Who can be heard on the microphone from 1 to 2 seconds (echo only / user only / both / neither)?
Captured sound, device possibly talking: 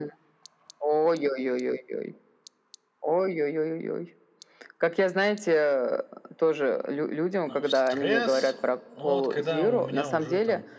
echo only